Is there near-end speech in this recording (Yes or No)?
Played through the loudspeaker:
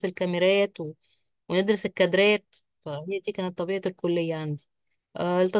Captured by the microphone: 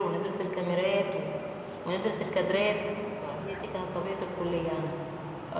No